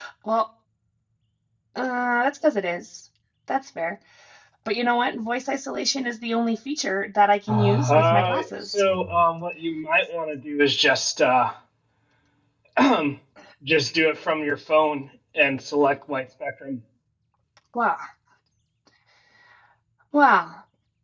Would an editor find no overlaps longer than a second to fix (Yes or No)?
No